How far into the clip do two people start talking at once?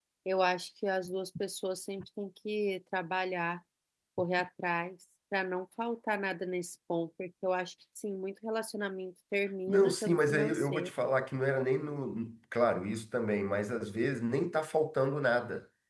9.7 s

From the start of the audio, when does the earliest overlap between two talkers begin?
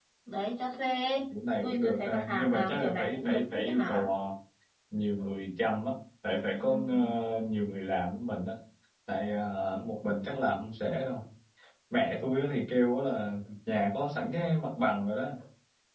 1.6 s

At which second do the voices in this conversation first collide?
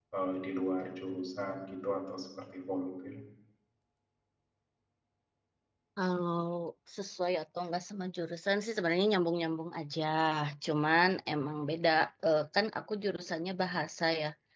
none

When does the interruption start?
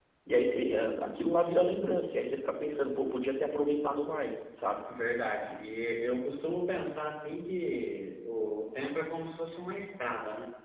none

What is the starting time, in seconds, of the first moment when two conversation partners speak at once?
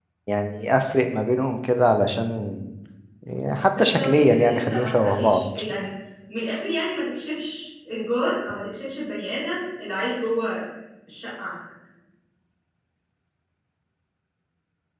3.8 s

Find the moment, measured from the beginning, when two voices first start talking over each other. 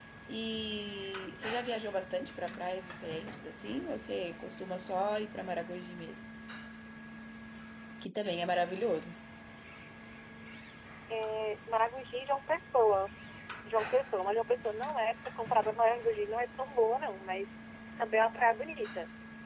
none

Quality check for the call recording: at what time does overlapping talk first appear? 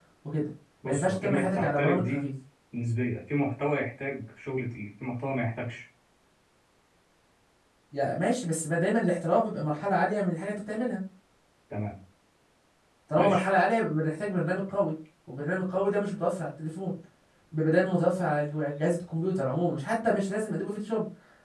0.8 s

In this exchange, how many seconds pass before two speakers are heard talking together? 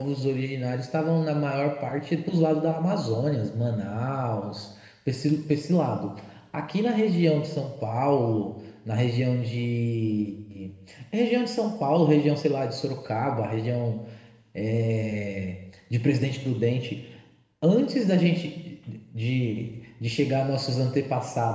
none

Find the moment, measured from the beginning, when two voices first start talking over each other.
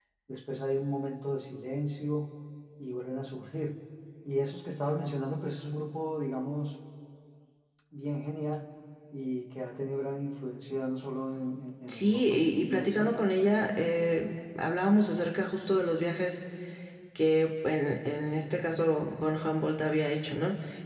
11.9 s

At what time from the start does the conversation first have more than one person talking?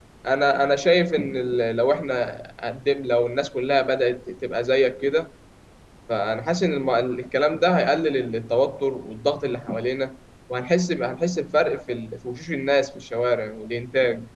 none

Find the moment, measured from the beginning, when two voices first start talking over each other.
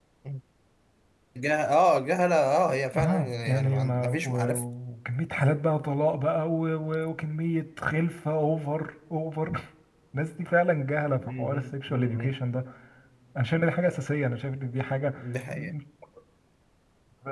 3.0 s

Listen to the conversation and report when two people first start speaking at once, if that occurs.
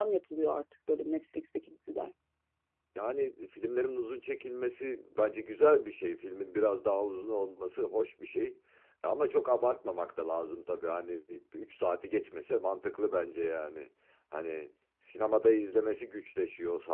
none

